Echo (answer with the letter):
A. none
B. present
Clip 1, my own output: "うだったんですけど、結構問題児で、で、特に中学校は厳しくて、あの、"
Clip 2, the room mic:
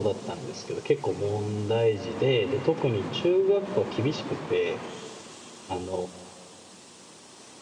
B